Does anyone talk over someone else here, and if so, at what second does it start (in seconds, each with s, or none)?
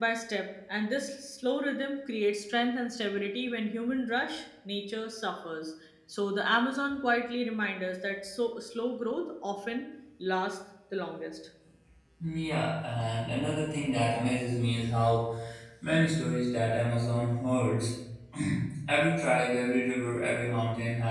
none